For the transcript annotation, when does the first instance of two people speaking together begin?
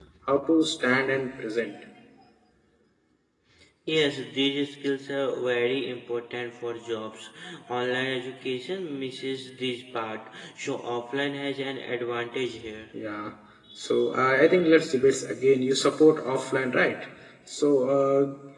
none

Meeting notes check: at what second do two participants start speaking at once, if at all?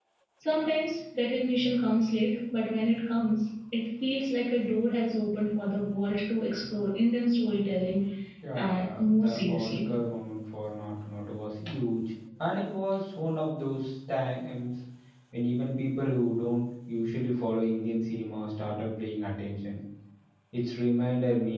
8.6 s

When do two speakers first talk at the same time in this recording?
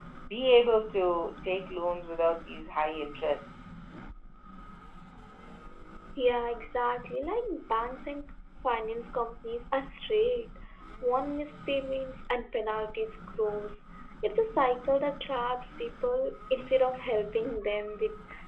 none

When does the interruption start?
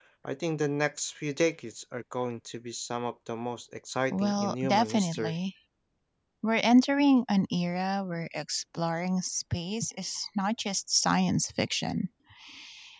4.1 s

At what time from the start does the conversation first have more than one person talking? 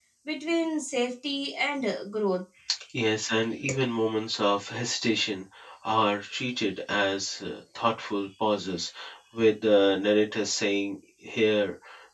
none

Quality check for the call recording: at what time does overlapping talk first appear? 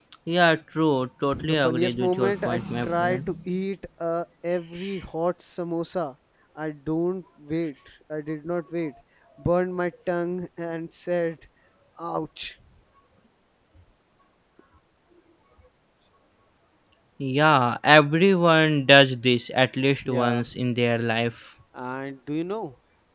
1.3 s

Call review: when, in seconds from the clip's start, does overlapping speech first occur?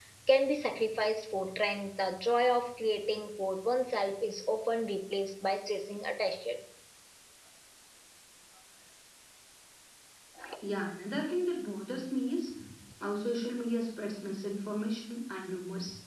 none

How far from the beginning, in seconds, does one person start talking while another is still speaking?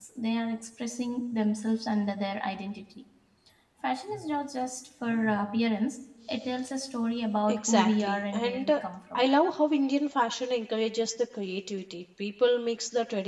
7.5 s

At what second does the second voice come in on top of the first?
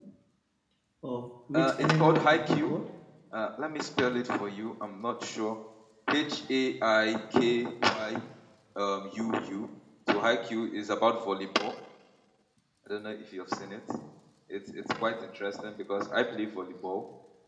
1.5 s

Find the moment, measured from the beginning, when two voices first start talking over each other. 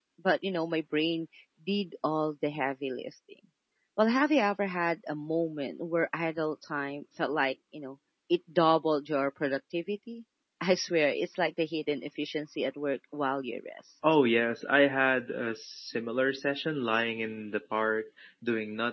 none

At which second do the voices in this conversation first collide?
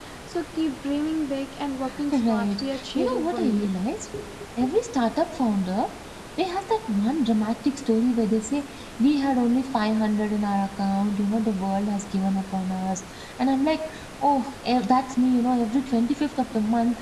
2.1 s

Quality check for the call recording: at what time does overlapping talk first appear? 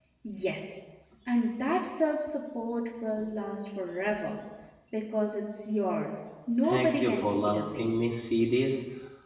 6.6 s

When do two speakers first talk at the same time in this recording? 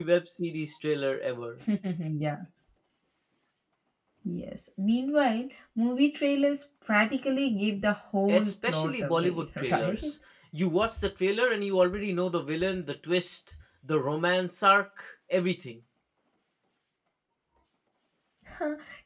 8.3 s

